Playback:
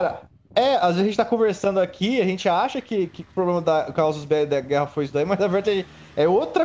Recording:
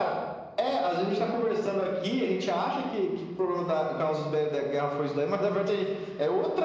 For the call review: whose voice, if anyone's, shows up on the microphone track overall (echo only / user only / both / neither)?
echo only